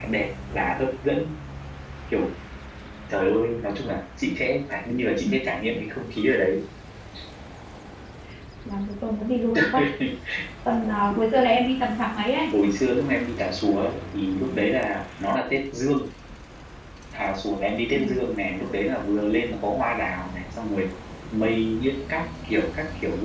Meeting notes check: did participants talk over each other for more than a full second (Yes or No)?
No